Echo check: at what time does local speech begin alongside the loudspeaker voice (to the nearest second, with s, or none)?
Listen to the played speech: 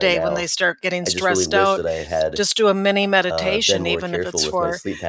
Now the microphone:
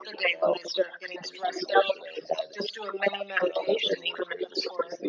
none